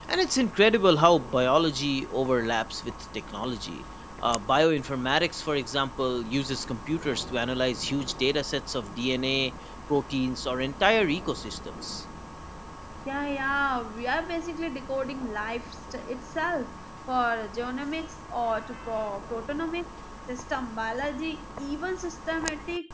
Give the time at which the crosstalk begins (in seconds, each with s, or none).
none